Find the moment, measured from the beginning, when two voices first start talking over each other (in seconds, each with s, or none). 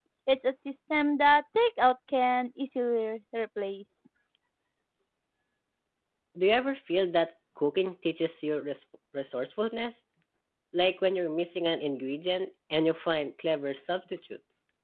none